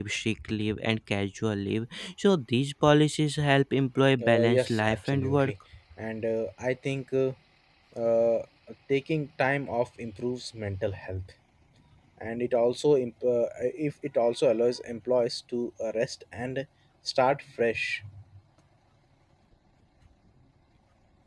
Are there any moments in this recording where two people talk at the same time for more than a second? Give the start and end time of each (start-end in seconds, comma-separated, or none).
4.2-5.5